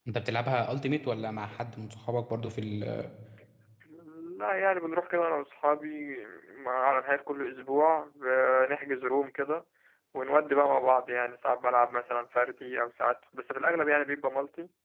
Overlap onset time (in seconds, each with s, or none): none